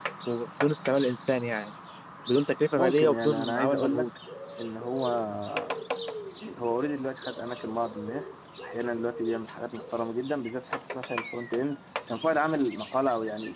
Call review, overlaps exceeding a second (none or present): present